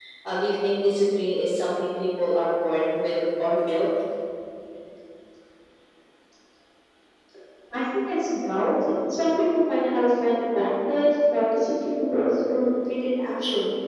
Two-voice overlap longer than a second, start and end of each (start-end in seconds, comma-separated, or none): none